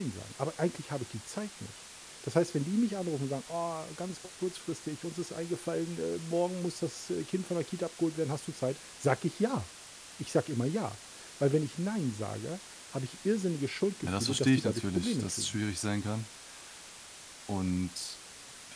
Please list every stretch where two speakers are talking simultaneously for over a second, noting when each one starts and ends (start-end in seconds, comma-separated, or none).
14.0-15.6